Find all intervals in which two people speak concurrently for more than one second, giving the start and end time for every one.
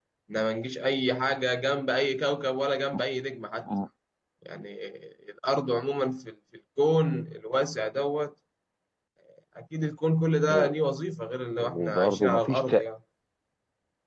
11.6-12.9

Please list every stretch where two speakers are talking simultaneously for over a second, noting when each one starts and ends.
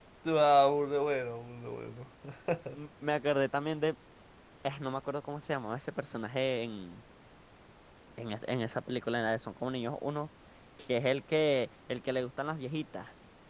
none

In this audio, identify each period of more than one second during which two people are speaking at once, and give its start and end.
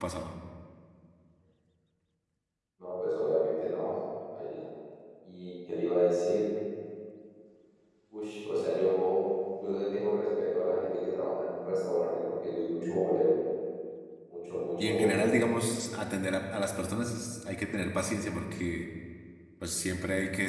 none

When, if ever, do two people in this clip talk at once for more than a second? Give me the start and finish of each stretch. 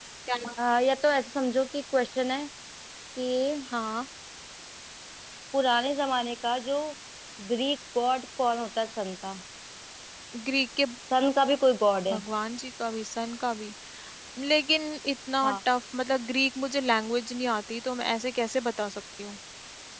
none

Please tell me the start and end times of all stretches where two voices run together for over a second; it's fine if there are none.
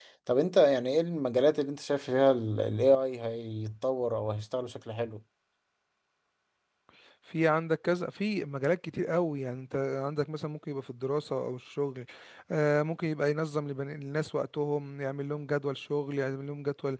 none

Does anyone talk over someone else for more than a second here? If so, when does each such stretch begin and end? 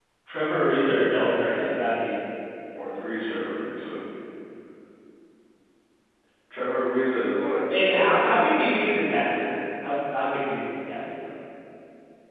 7.7-9.5

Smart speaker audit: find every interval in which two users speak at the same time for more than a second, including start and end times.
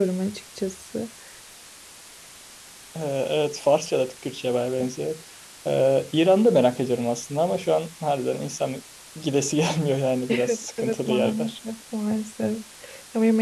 10.3-11.5

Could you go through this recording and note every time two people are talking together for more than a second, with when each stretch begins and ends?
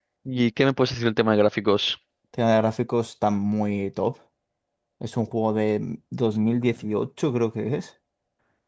none

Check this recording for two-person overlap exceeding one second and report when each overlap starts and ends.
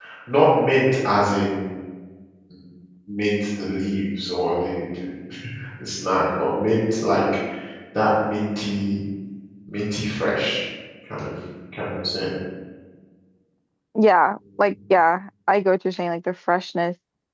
none

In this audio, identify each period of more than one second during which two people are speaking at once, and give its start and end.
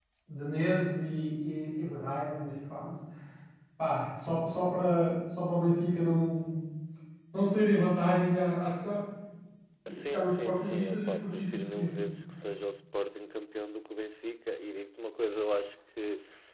10.0-11.9

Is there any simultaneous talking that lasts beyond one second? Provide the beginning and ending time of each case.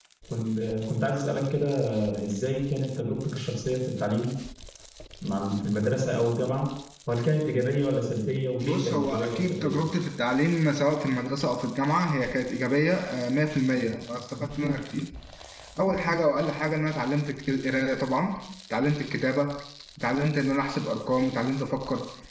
8.6-9.8

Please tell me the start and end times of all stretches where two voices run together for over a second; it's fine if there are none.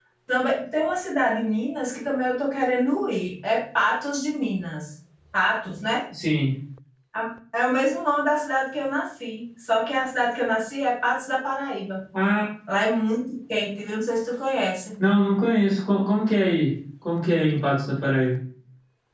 none

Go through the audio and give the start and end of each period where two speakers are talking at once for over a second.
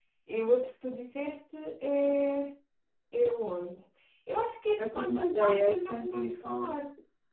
4.8-6.7

